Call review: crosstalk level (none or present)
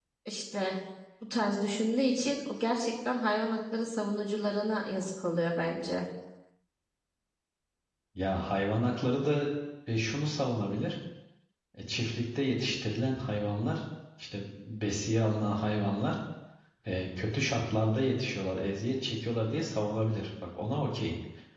none